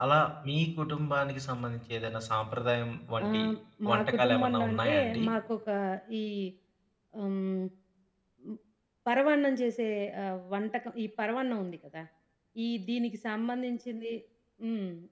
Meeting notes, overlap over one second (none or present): present